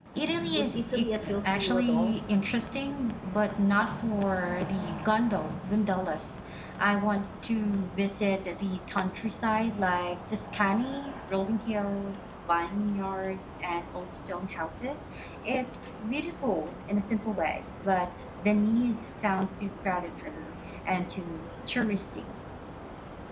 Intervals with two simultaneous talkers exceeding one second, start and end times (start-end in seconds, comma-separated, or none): 0.6-2.2